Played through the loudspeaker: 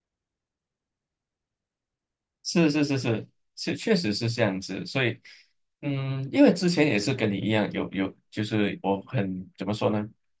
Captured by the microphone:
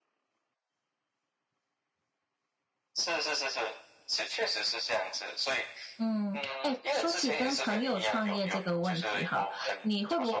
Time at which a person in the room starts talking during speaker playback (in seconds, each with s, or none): 6.0 s